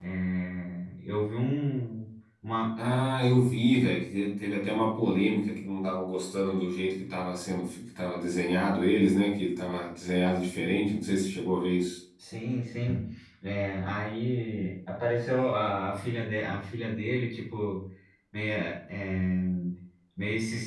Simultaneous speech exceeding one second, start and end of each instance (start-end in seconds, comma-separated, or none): none